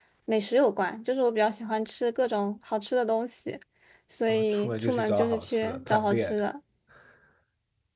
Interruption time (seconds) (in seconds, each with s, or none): 4.3 s